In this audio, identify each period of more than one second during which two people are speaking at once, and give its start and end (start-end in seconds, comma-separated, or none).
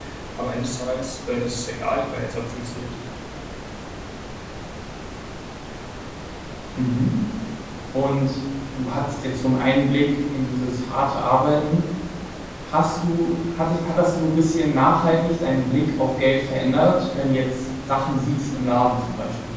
none